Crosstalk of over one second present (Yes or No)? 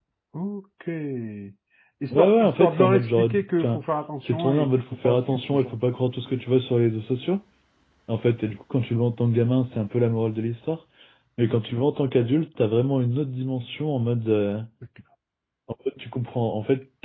Yes